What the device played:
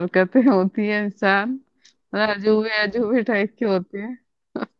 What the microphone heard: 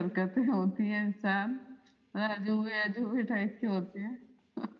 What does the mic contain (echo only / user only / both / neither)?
echo only